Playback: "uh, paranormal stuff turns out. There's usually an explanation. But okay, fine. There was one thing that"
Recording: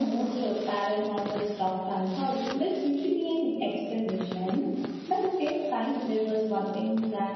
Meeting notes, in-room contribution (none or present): none